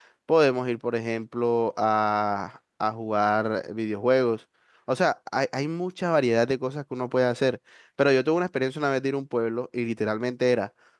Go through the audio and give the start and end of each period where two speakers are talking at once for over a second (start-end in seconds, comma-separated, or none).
none